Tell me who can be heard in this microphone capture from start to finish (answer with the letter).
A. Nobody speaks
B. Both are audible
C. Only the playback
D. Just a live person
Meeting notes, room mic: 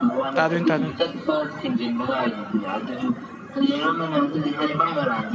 B